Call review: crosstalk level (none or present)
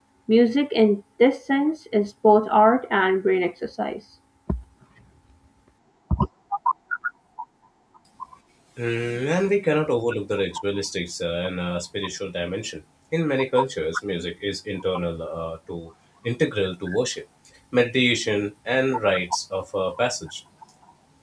none